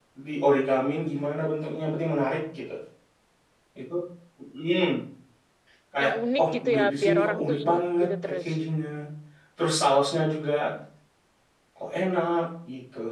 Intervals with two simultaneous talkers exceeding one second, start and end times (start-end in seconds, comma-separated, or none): 6.0-8.5